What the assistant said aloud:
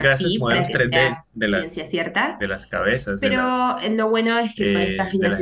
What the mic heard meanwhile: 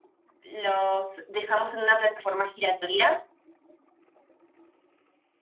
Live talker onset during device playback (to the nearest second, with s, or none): 1 s